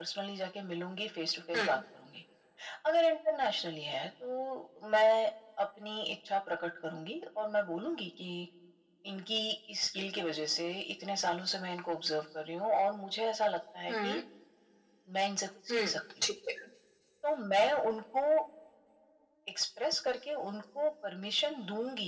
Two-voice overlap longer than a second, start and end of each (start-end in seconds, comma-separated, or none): none